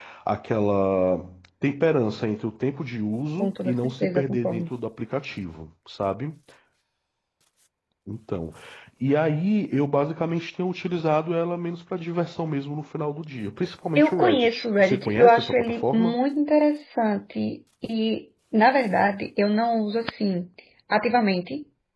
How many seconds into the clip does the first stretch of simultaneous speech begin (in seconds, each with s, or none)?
3.4 s